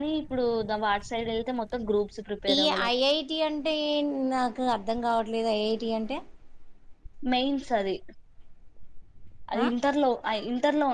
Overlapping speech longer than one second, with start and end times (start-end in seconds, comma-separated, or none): none